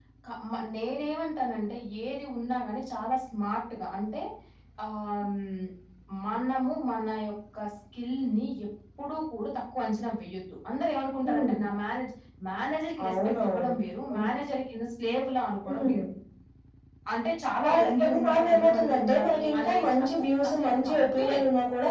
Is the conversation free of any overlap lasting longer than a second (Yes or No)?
No